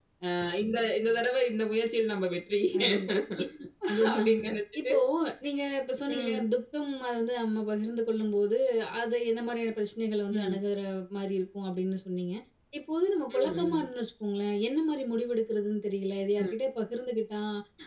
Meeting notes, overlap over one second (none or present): none